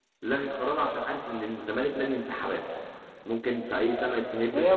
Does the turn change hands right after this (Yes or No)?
Yes